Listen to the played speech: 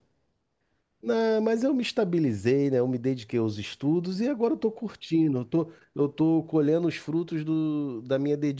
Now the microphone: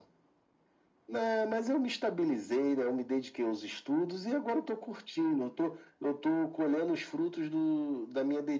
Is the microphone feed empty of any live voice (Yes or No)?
Yes